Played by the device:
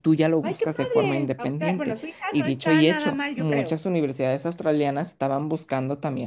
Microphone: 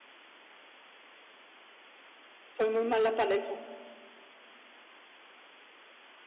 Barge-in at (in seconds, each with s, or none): 2.5 s